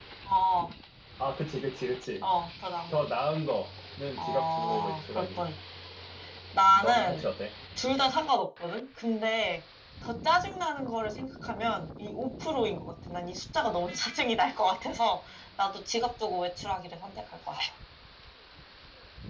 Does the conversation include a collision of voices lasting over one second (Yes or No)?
Yes